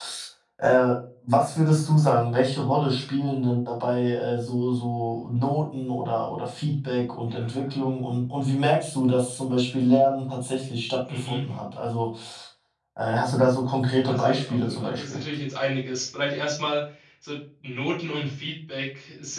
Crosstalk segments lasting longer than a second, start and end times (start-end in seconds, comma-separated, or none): 14.0-15.2